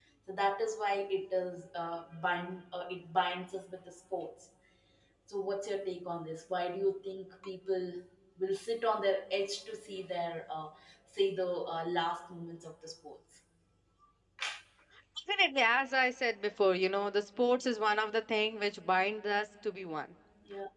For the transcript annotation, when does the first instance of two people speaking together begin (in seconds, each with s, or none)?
none